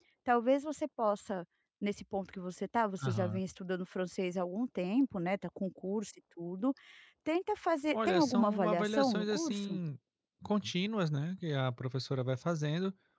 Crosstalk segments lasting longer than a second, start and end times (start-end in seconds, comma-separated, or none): 7.9-9.8